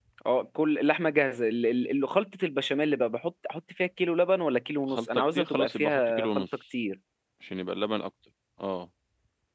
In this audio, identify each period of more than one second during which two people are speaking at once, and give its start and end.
4.9-6.4

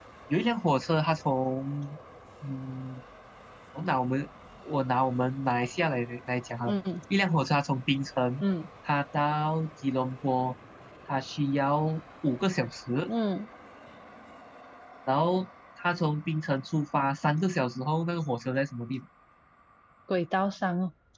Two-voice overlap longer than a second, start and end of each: none

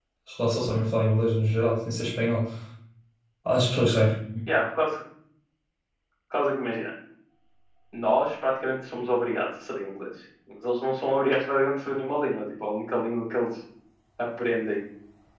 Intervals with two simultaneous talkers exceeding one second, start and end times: none

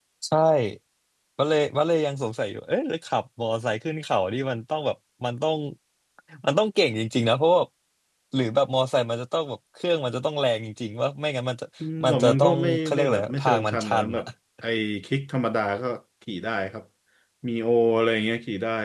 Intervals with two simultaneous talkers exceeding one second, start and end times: 12.0-14.2

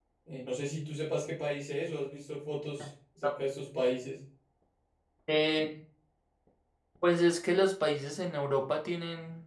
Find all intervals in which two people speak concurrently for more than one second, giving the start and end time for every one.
none

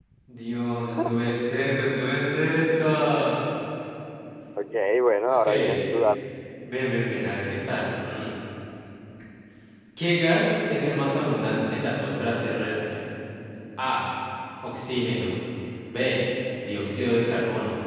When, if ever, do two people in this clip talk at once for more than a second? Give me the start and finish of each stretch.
none

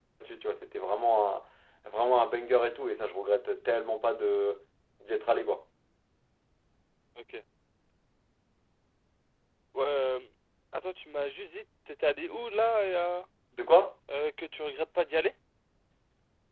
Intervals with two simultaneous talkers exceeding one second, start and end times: none

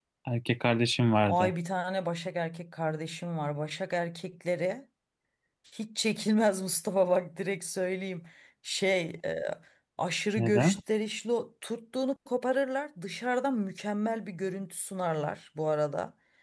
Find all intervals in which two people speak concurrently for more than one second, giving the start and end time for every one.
none

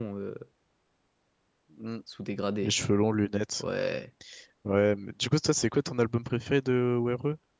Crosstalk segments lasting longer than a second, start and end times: none

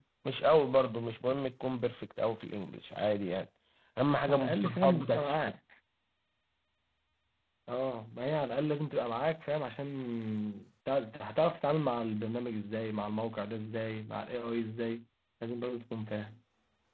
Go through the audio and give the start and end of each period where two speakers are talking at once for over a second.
4.1-5.4

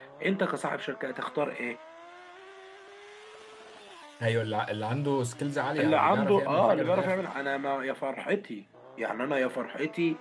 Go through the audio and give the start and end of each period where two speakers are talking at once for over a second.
5.8-7.2

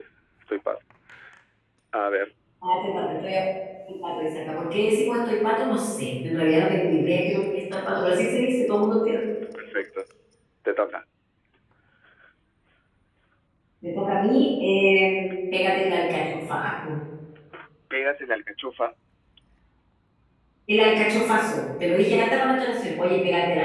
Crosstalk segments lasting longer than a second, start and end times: none

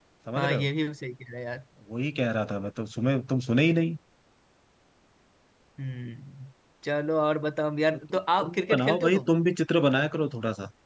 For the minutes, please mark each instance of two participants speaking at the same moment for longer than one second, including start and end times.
8.1-9.3

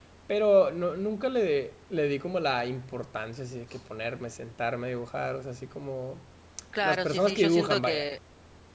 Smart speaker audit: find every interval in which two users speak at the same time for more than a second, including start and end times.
6.8-8.1

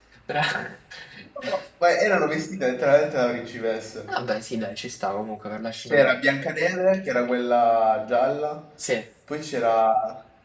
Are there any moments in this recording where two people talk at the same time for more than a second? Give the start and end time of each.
none

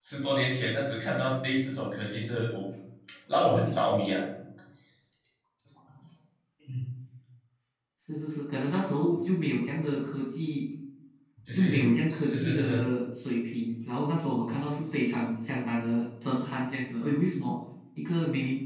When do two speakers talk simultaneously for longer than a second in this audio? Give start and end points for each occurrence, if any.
11.5-12.8

